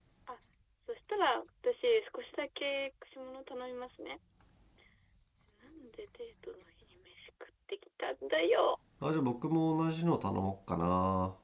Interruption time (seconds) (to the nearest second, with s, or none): none